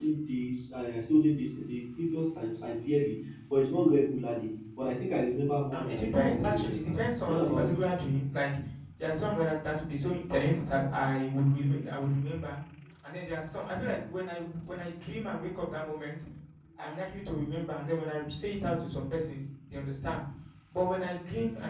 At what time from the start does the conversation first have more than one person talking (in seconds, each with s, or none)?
5.7 s